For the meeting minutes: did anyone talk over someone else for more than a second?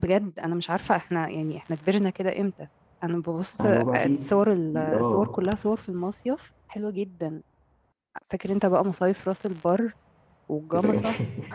No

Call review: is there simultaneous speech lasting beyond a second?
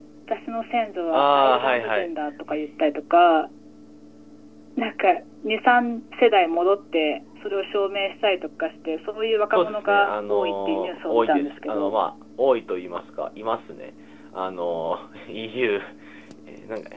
Yes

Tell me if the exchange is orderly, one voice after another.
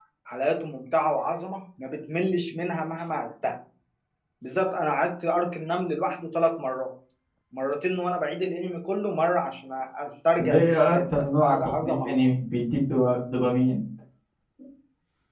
No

